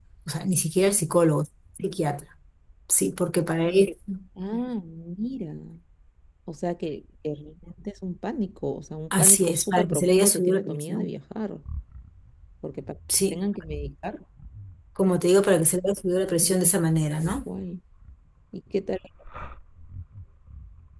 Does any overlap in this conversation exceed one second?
Yes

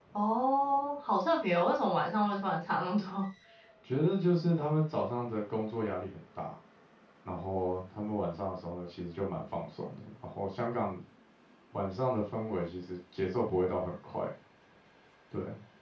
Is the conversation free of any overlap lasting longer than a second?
Yes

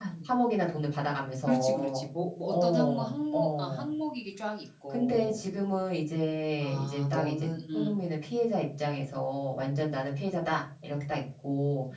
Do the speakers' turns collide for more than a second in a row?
Yes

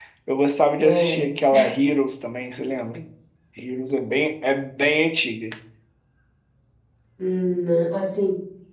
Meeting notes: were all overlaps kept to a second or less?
Yes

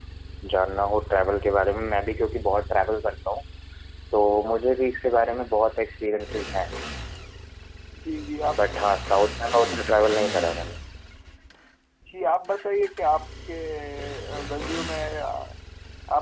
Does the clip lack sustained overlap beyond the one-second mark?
Yes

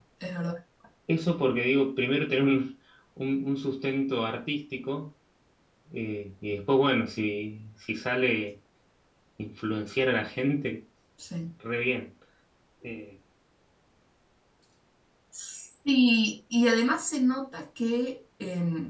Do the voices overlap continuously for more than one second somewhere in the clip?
No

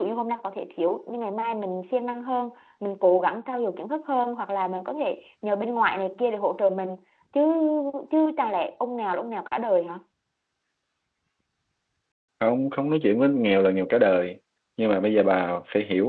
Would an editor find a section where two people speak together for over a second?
No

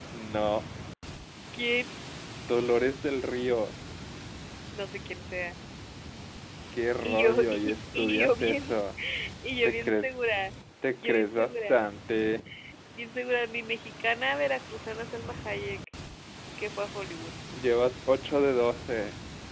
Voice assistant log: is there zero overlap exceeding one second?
No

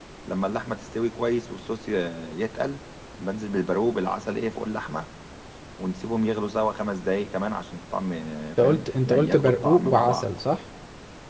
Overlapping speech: Yes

